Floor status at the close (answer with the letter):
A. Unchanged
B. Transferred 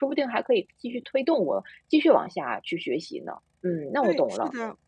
B